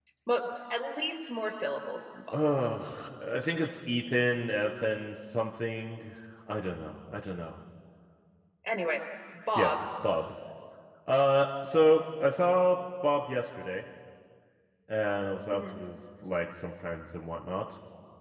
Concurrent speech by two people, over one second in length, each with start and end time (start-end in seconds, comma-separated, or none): none